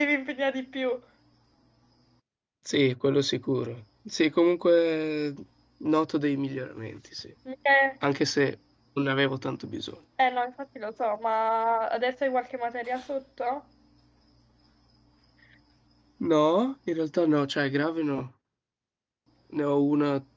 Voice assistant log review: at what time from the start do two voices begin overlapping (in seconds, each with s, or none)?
none